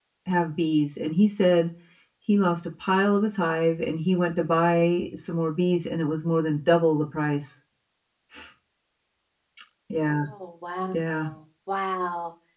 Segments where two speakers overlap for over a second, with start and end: none

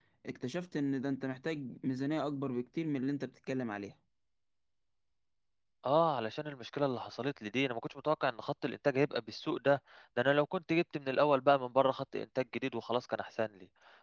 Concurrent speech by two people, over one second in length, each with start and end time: none

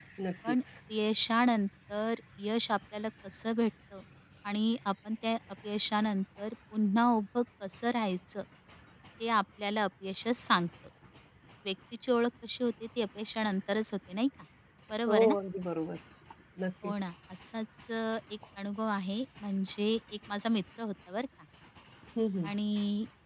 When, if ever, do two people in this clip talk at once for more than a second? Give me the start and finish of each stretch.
none

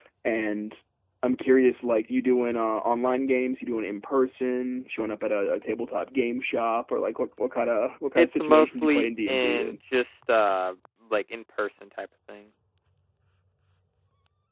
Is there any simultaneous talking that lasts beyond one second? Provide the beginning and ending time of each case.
8.2-9.8

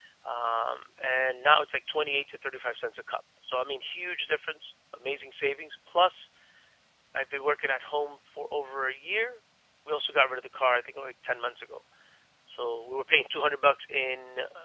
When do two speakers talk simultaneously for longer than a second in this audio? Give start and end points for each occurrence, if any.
none

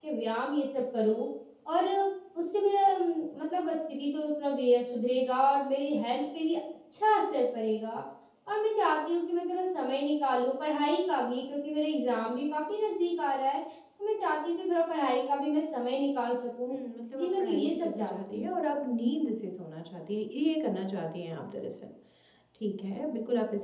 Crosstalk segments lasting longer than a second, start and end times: 17.1-18.5

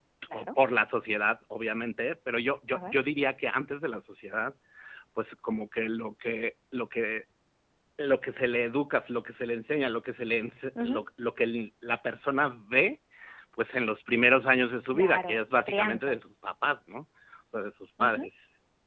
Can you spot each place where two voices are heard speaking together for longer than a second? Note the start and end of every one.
14.9-16.2

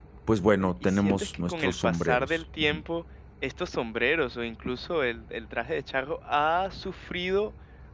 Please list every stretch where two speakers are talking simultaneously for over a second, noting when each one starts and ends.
0.6-2.8

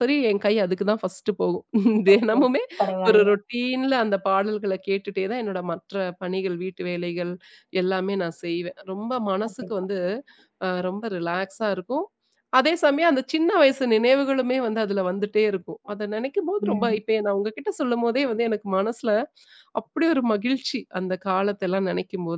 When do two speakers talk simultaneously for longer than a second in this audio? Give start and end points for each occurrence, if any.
none

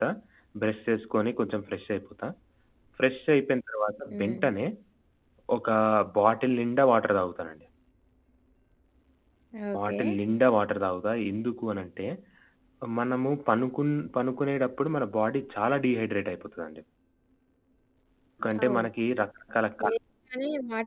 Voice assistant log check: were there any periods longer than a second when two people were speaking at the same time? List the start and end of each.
none

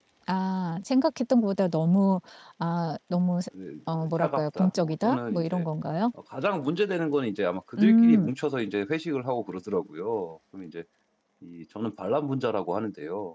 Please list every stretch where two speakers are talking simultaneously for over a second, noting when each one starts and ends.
4.2-5.6

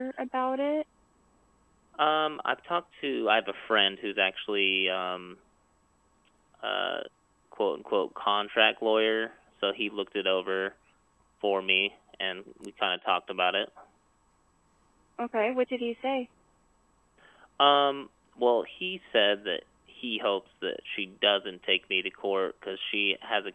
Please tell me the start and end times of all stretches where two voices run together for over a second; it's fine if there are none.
none

